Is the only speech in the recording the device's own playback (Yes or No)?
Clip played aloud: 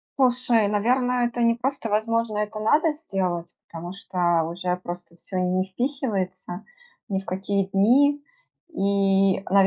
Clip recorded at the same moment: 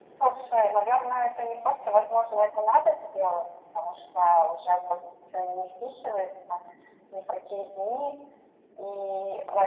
Yes